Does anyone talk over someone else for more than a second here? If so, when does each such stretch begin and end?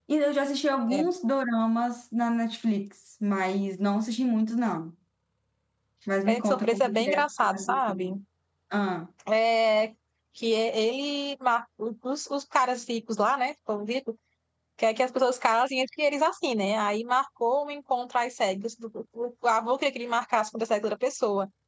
6.3-8.1

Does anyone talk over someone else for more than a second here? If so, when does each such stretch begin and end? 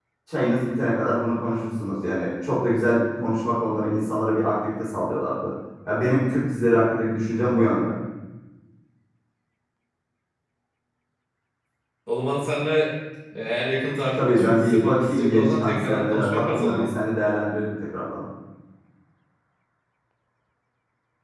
14.2-16.9

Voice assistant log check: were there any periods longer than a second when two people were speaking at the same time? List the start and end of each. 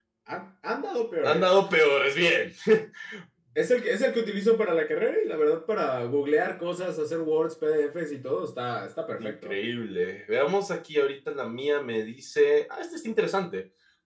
none

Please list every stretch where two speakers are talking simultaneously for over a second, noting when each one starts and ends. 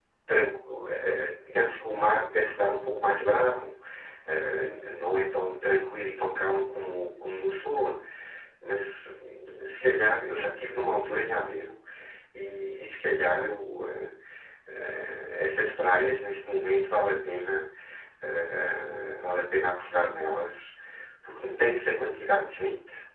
none

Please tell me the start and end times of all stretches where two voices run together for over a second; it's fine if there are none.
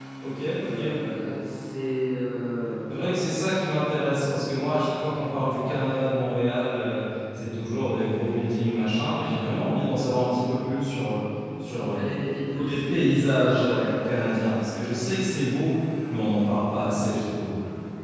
12.5-14.1

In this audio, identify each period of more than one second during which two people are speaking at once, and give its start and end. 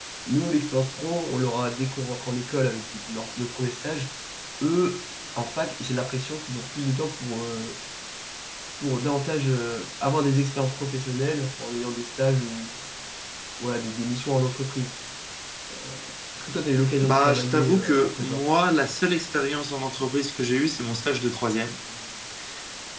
17.0-18.4

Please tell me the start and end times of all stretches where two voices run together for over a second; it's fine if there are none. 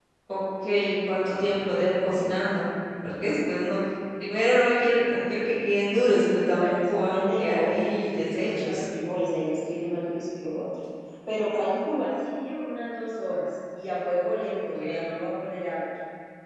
6.5-8.8

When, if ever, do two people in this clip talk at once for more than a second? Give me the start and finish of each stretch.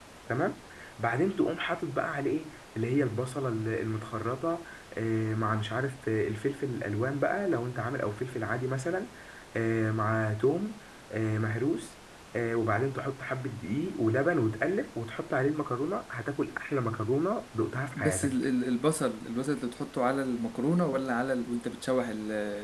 none

